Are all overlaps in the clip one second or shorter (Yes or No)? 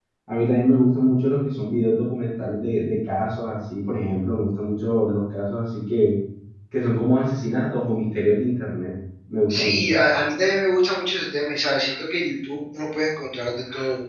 Yes